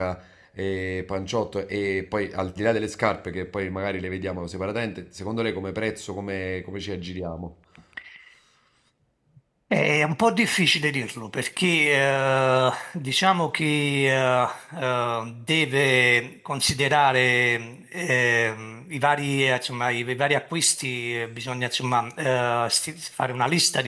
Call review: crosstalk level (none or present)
none